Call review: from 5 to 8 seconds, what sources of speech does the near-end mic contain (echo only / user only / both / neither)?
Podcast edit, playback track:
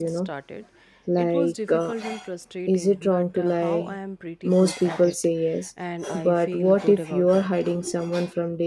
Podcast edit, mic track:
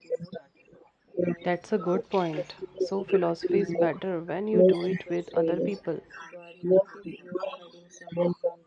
both